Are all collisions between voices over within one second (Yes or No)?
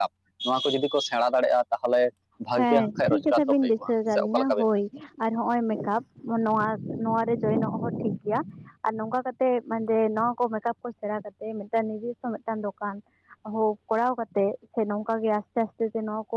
No